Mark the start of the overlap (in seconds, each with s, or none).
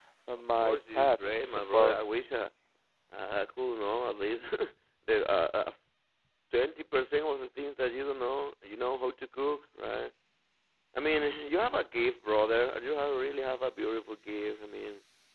0.6 s